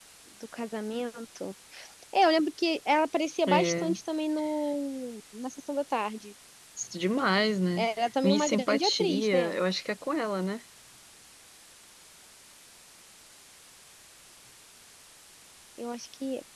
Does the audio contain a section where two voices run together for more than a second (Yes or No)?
Yes